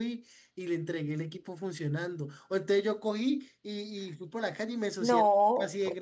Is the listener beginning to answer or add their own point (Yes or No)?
No